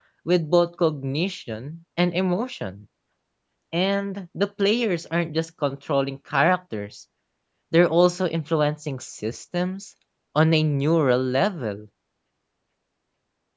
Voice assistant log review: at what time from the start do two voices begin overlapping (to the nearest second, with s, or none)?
none